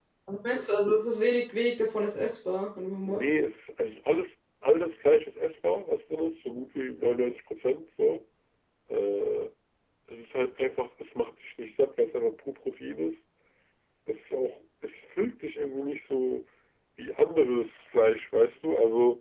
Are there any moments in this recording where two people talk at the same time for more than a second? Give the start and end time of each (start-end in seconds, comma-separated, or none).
none